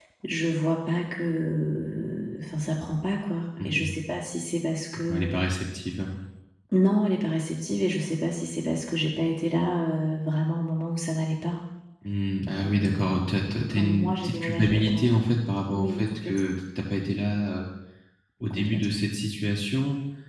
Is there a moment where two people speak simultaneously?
Yes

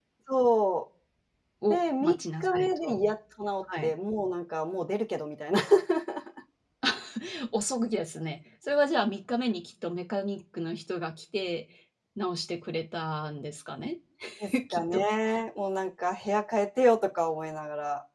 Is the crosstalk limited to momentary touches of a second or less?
No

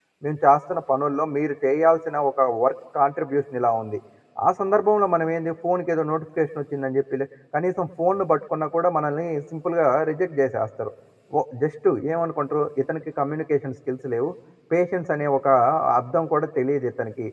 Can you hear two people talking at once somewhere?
No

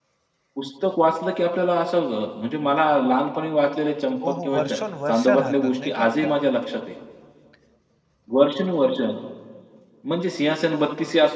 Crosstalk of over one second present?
Yes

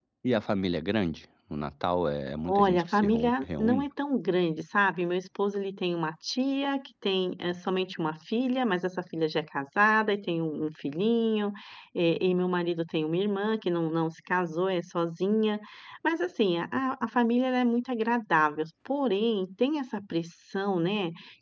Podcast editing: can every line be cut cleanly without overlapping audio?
No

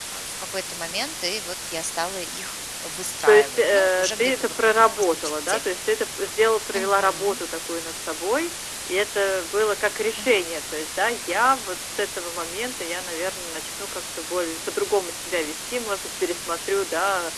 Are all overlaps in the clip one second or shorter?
No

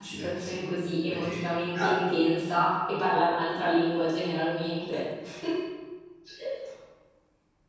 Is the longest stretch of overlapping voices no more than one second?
Yes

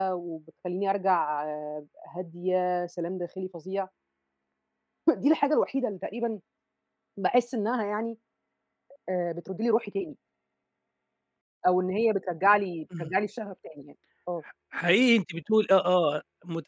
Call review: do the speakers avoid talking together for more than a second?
Yes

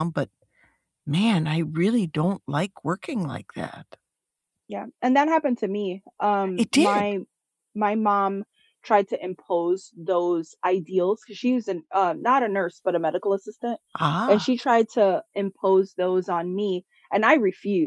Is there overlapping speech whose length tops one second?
No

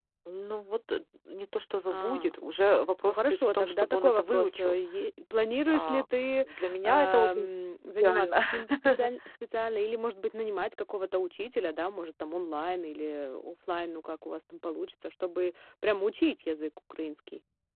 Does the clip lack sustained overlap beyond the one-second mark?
No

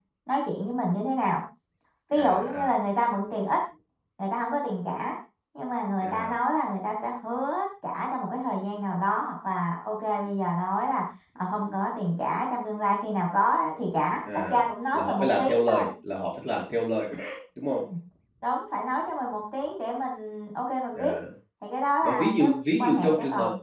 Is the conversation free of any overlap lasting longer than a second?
No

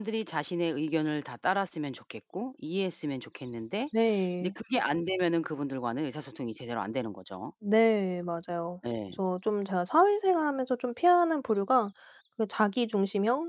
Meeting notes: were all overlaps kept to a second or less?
Yes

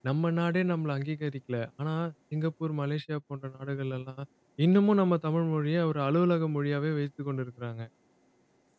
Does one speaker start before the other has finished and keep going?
No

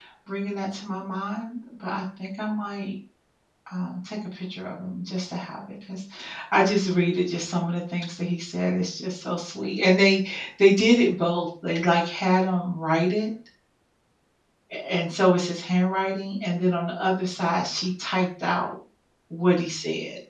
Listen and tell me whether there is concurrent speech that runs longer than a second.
No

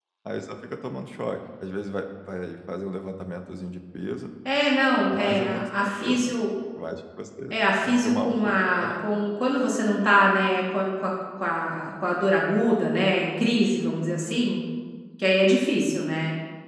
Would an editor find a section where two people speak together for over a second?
Yes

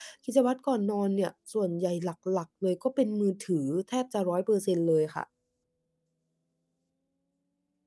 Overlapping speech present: No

